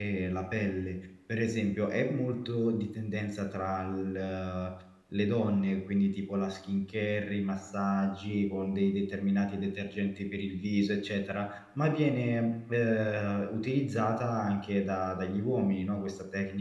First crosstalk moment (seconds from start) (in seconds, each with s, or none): none